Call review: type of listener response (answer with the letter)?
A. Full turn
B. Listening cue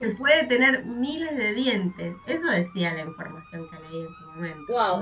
A